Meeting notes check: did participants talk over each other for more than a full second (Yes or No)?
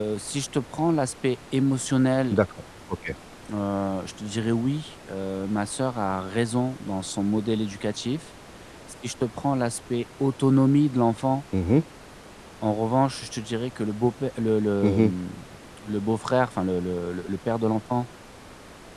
No